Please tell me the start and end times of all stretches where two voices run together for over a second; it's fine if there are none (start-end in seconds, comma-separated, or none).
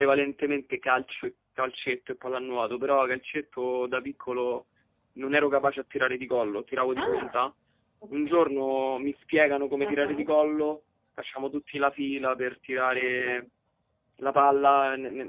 none